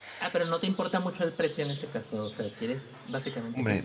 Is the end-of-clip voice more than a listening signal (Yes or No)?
Yes